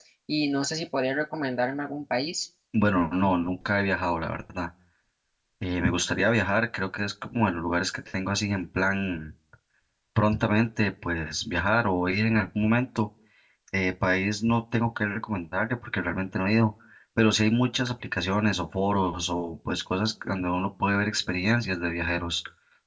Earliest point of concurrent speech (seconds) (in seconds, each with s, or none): none